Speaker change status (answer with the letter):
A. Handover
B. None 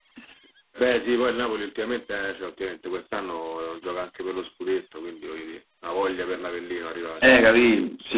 A